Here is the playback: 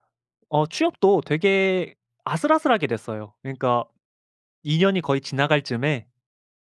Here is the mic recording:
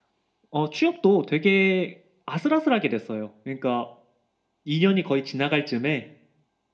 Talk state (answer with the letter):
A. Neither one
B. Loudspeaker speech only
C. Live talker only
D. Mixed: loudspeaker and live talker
B